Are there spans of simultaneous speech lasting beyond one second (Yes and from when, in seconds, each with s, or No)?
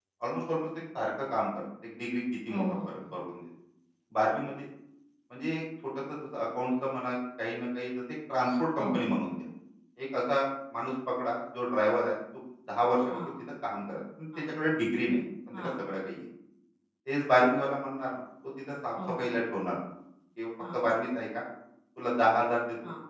No